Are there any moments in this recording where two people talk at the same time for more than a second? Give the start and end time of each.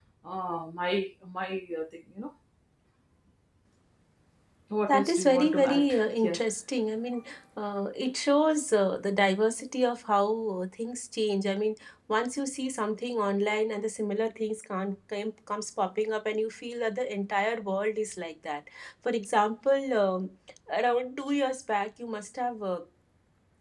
4.9-6.4

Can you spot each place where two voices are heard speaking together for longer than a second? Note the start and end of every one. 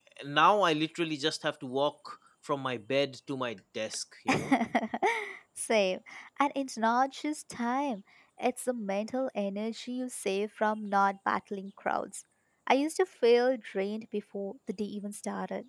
none

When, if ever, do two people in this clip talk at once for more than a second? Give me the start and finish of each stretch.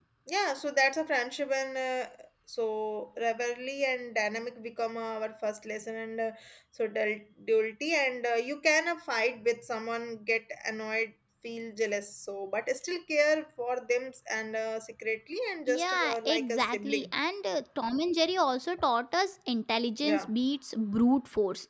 15.7-17.1

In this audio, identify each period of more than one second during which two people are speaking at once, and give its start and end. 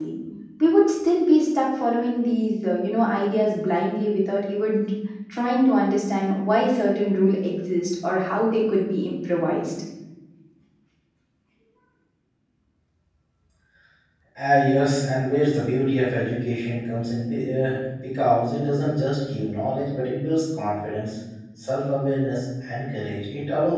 none

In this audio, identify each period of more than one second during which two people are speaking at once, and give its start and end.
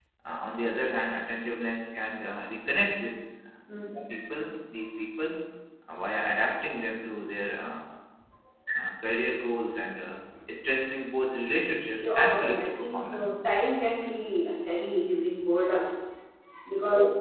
11.9-13.3

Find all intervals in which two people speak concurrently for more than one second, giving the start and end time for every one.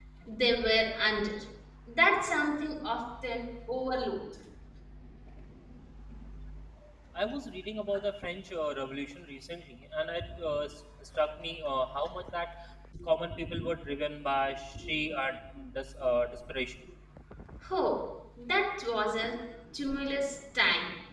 none

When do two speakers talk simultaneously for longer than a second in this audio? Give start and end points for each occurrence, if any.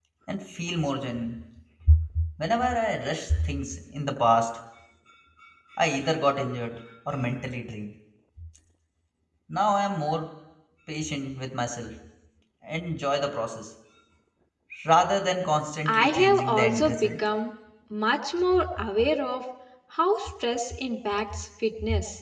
15.9-17.1

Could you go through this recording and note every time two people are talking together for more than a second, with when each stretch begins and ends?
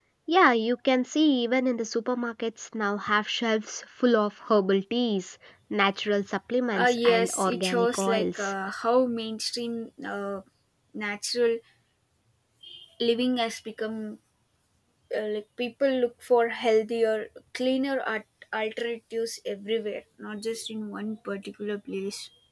6.8-8.5

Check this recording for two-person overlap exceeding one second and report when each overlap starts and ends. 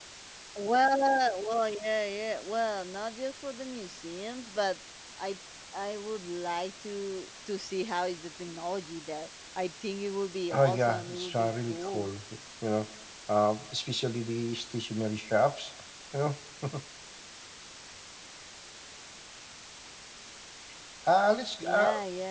10.5-12.1

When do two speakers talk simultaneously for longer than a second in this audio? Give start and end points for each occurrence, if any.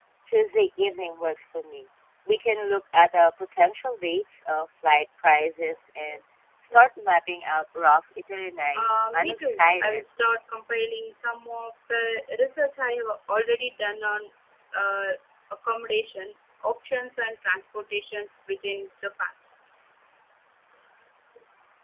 8.8-10.0

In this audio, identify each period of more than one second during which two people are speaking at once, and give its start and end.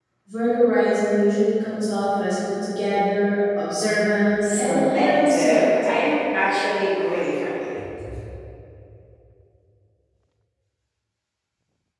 4.4-6.0

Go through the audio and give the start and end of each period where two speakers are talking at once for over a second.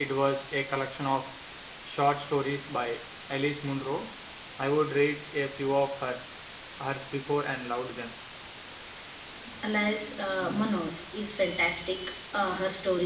none

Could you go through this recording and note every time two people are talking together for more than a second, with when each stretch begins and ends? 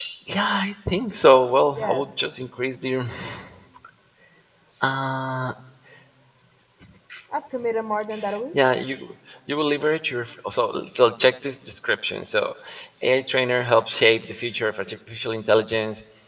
none

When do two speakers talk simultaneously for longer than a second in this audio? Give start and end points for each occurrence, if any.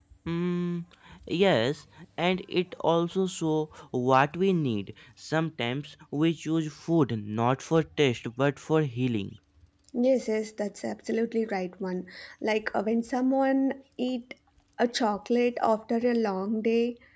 none

